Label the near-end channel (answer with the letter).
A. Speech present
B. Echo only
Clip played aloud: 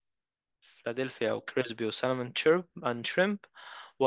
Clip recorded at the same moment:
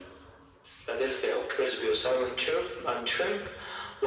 B